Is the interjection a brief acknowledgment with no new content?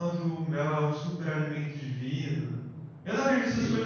Yes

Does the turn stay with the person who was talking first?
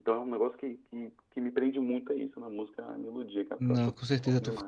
No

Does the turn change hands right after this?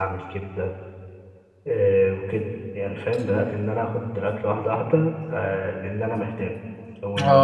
Yes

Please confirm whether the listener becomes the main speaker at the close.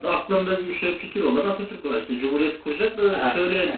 Yes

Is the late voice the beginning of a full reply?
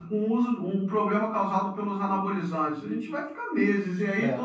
No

